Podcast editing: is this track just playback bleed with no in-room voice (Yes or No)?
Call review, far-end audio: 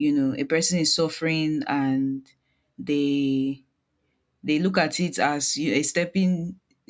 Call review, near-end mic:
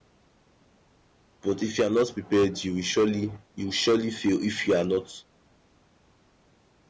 No